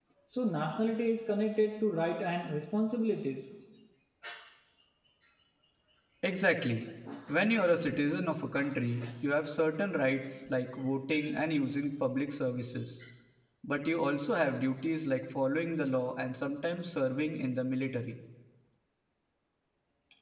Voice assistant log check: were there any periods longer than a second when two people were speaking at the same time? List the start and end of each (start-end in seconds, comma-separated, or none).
none